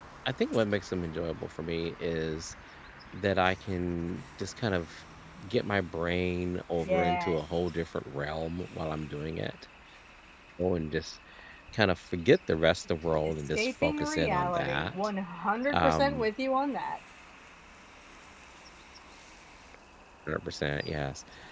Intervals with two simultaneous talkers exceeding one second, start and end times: 13.6-14.9

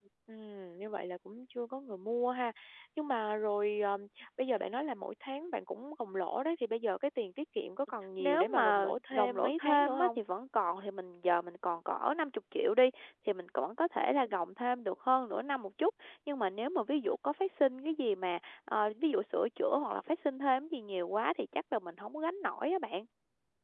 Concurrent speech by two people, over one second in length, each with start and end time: 8.2-10.2

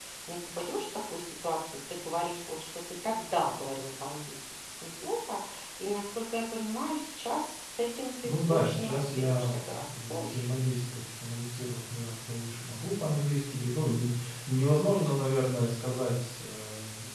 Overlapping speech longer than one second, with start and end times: 8.2-10.5

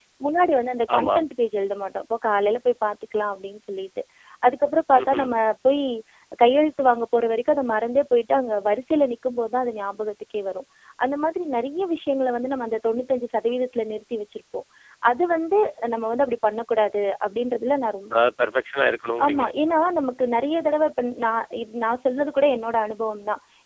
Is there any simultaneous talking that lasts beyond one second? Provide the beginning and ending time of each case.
none

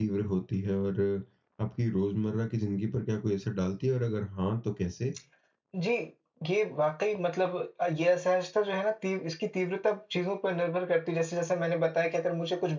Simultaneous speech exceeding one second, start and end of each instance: none

